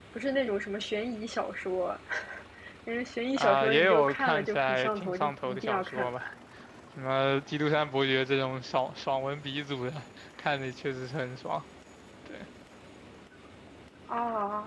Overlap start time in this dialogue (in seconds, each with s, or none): 3.4 s